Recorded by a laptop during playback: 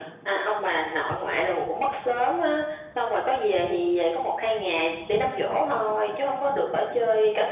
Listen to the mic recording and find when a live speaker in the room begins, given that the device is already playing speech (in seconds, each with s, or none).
none